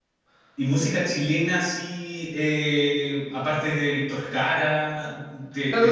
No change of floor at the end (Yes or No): No